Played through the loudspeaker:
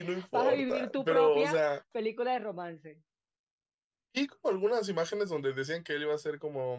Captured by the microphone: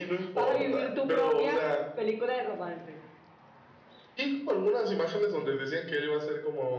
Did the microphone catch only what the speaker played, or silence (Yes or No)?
Yes